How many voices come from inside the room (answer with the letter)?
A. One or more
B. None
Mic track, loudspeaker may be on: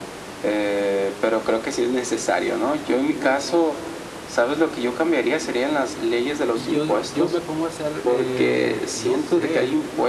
A